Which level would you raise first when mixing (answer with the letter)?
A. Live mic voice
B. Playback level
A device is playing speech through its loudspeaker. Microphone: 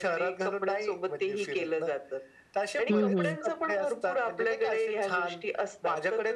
B